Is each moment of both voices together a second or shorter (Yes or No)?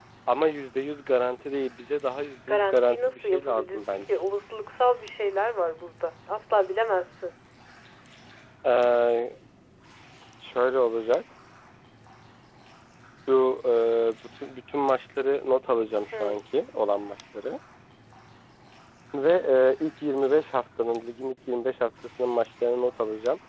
No